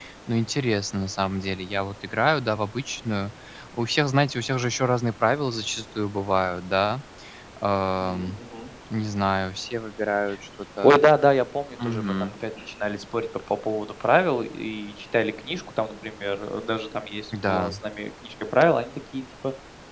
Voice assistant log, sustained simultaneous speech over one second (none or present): none